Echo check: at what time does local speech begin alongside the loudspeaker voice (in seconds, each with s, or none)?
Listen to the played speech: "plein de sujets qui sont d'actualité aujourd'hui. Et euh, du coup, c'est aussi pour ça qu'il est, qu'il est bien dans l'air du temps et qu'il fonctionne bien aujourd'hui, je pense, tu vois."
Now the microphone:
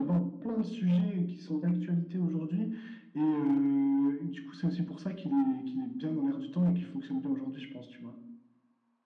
none